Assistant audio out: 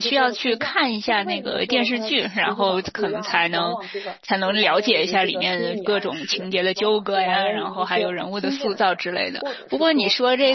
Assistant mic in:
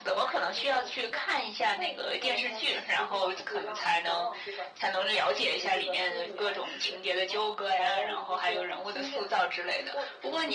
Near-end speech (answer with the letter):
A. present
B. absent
B